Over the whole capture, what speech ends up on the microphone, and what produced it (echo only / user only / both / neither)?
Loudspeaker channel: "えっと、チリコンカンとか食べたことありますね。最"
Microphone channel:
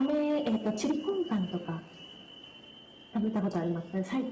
echo only